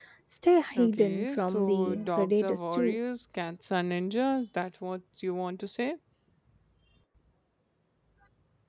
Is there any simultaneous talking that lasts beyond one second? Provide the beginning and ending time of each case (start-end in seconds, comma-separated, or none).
0.8-3.0